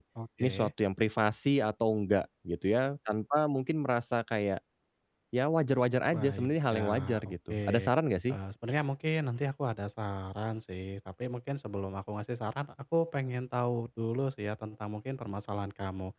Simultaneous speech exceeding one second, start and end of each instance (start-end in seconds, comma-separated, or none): 6.1-7.6